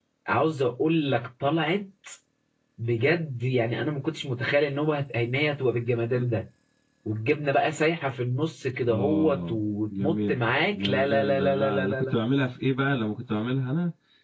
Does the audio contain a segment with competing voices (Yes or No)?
Yes